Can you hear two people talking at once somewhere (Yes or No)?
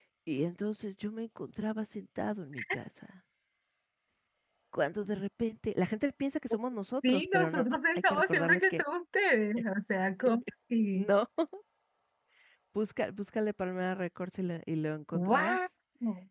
Yes